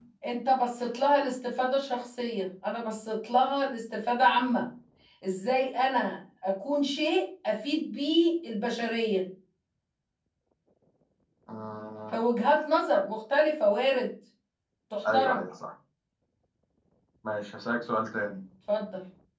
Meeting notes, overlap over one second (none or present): none